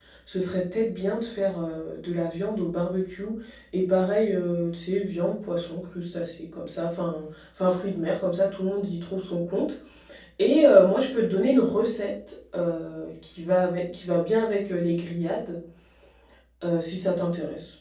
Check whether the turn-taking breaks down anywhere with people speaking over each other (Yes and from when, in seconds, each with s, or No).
No